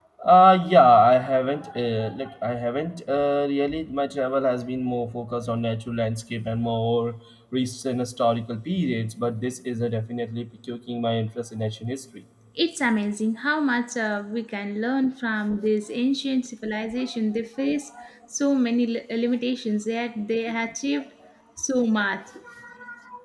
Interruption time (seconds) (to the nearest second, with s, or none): none